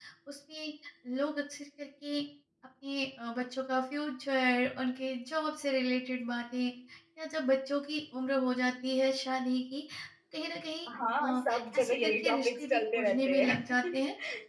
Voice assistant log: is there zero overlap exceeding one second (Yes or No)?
No